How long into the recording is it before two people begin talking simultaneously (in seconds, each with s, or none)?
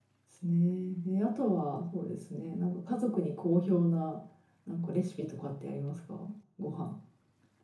none